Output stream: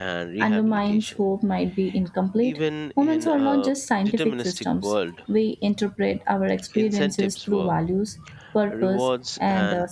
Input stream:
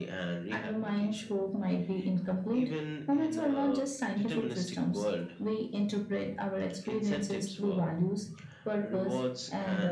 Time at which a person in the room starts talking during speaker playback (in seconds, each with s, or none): none